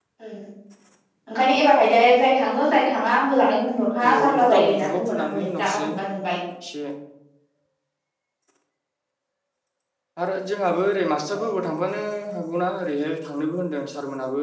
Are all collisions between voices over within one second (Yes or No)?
No